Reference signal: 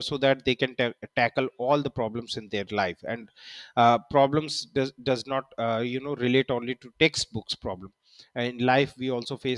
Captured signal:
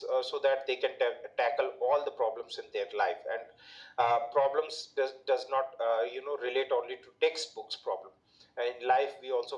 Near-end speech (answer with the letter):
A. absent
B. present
A